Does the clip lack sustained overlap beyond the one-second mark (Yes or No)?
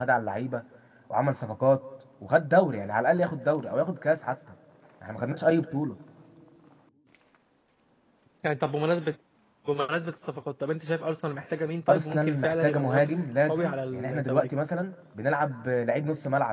No